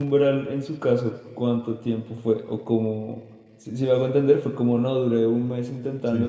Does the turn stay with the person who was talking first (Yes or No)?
Yes